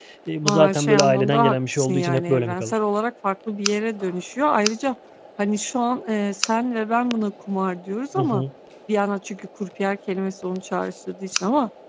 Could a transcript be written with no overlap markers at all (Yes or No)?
No